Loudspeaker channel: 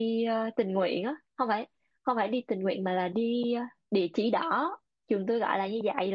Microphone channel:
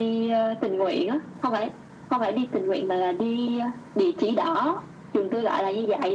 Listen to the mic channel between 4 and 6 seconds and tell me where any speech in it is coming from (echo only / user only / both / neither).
echo only